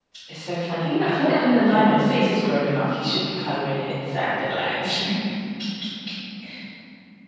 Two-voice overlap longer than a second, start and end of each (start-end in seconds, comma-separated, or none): 0.8-2.2